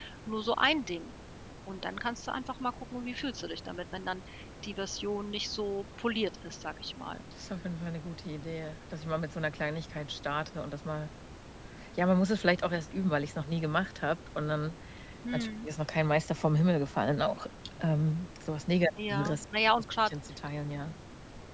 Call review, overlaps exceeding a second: none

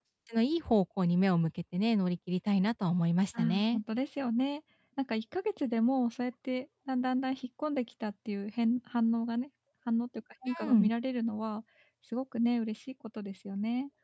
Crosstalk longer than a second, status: none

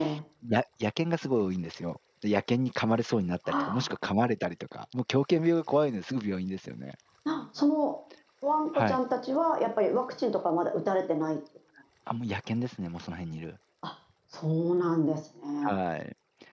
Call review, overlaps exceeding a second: none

